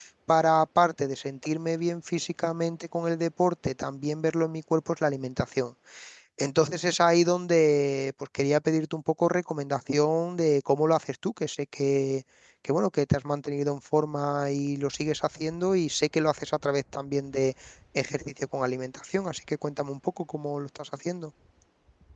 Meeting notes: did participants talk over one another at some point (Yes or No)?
No